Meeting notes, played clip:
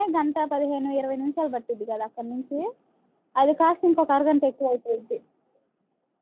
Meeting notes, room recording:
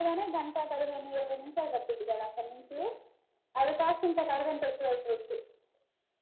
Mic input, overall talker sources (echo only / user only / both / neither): echo only